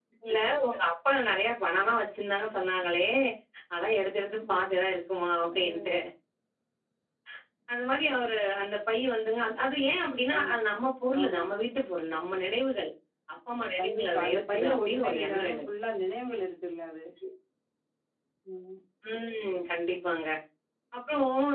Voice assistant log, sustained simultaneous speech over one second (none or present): present